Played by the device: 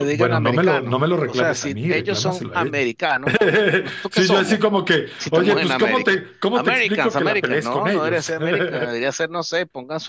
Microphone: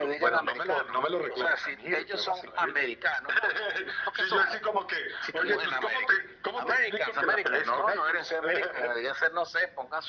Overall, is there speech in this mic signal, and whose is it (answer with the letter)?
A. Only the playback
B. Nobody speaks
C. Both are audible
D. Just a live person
A